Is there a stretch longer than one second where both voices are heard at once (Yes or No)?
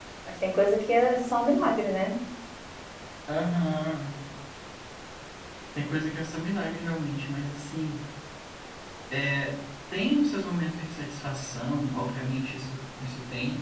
No